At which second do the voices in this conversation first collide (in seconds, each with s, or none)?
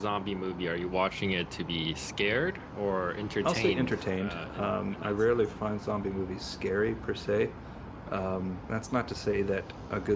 3.4 s